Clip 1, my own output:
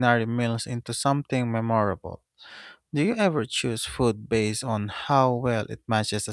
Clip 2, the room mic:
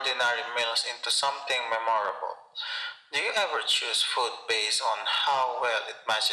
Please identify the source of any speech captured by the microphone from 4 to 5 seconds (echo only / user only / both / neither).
echo only